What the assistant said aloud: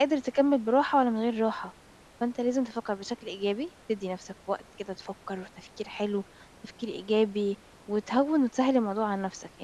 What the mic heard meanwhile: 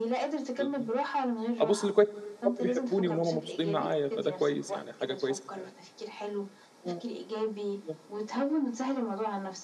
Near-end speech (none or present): present